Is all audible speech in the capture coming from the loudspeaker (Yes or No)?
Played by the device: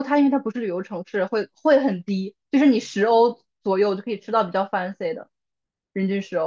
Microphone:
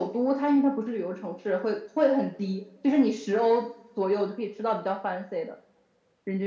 Yes